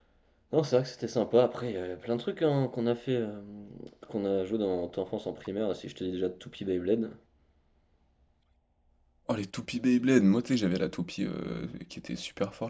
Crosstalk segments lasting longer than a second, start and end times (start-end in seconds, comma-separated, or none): none